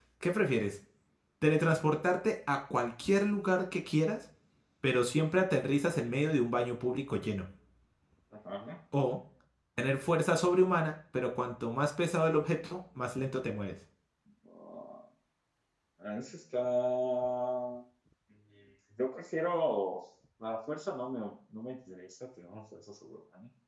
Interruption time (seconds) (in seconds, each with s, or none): none